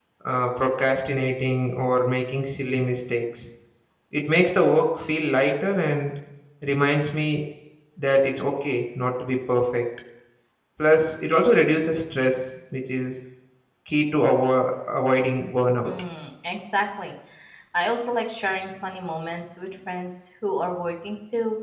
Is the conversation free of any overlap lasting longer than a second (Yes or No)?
Yes